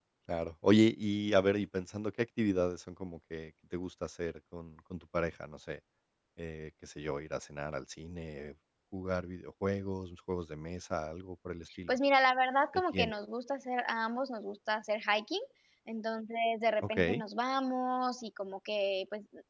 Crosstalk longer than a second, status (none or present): none